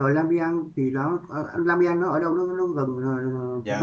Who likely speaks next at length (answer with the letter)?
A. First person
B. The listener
B